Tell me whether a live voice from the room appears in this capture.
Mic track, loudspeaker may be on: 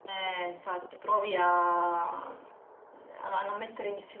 No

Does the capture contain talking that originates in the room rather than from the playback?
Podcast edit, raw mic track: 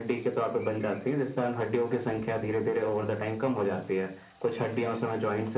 No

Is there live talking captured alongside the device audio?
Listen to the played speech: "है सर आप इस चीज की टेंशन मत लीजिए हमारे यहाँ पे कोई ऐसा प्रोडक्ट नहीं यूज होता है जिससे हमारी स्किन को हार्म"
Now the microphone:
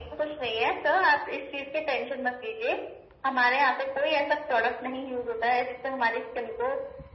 No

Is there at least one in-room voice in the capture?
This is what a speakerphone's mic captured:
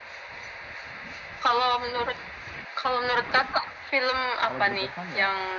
Yes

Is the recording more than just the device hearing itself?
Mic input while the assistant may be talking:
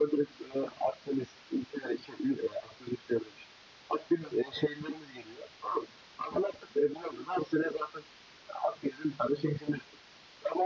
No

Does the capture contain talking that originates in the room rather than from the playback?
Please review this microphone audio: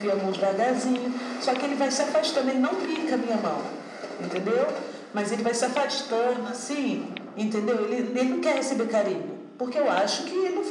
No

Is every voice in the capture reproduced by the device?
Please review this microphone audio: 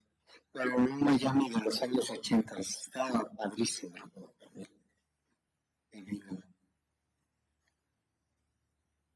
Yes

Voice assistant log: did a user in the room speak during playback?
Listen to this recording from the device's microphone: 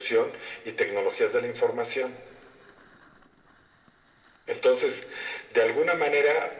No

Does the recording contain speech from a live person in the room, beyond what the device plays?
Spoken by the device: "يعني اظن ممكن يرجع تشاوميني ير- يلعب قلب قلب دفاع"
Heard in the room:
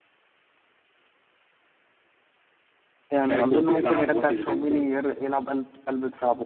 Yes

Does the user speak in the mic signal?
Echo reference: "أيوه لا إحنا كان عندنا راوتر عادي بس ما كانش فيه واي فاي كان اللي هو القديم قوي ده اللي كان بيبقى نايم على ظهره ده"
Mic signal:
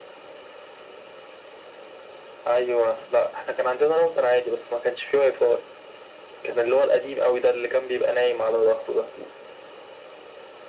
No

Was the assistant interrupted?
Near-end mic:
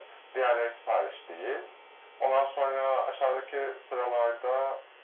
No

